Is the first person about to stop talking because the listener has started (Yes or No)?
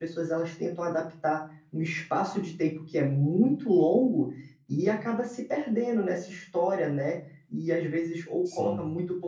No